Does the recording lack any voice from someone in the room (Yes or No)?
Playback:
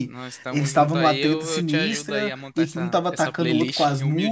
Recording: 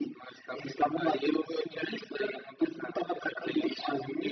Yes